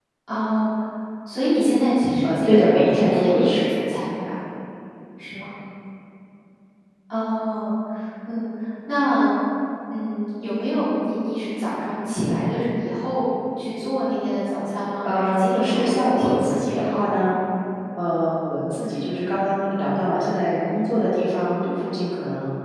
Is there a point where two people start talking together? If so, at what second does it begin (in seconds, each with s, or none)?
2.2 s